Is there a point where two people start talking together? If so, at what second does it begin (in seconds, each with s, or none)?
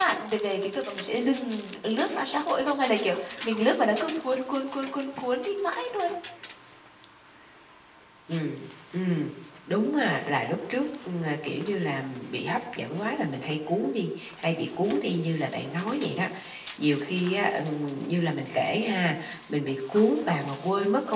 none